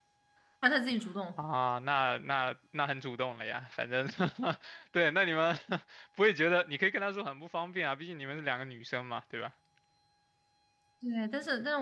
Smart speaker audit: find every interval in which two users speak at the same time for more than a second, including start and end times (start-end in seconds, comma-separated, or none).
none